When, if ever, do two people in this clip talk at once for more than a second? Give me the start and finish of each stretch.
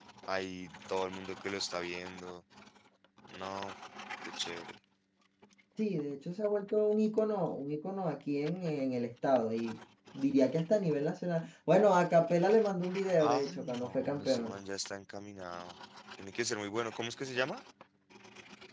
13.2-14.6

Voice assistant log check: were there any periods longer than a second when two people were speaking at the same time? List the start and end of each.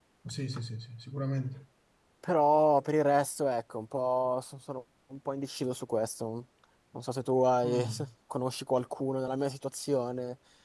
none

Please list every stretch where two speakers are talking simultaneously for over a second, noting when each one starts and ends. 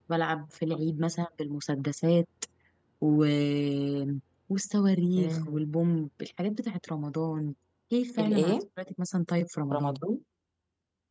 none

